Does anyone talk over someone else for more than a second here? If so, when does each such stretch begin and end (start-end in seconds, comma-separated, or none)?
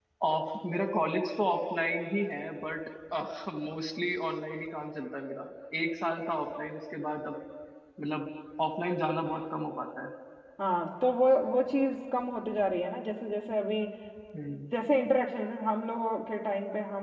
none